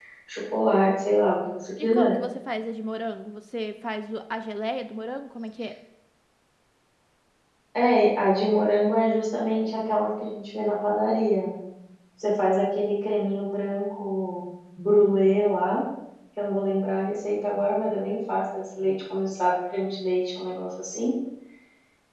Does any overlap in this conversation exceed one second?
No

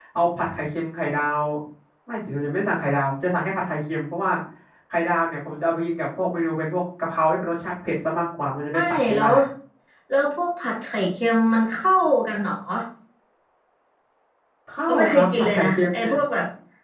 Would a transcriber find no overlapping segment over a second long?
No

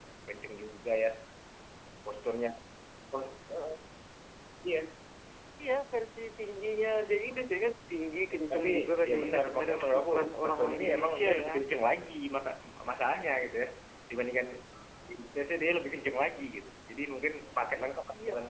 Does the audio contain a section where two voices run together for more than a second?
Yes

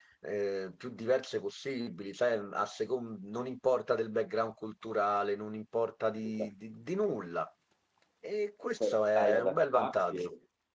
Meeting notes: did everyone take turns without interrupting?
No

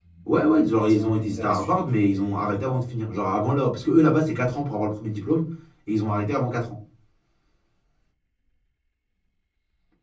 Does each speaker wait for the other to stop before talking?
No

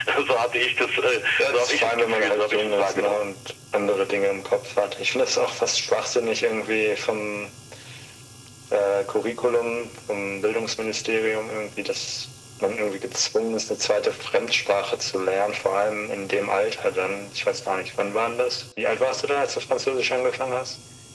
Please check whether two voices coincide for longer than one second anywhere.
Yes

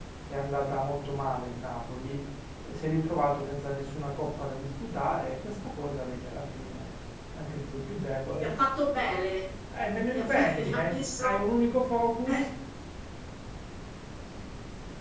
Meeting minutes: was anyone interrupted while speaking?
Yes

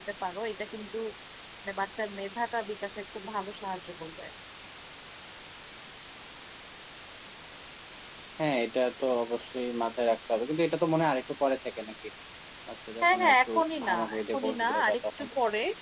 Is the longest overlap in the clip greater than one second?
Yes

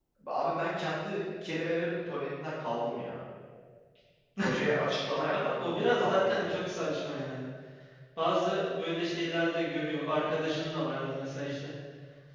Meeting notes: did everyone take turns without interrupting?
No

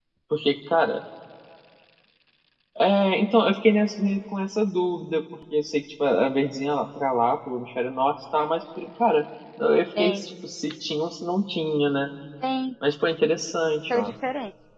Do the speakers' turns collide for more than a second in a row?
No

